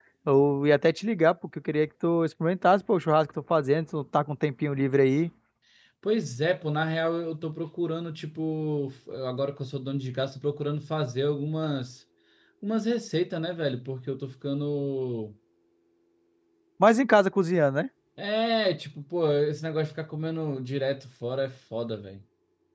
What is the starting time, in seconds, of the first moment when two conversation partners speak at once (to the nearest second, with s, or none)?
none